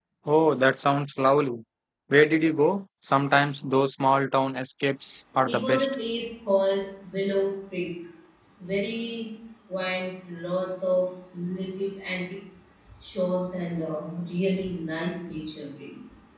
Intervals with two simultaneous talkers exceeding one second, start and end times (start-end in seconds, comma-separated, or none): none